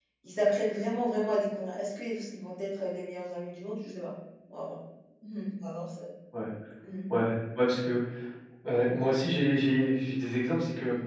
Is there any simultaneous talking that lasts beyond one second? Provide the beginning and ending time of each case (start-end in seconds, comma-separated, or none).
none